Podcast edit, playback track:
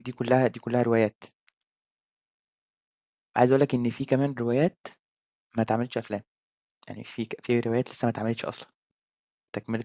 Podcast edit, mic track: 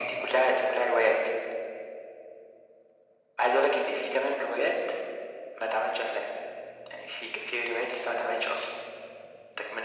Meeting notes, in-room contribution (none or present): none